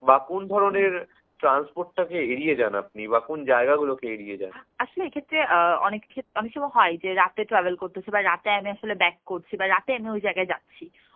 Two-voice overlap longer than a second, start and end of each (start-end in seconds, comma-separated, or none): none